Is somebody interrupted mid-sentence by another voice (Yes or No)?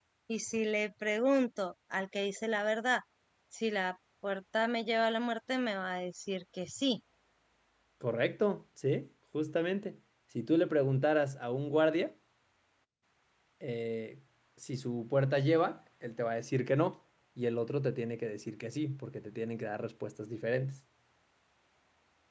No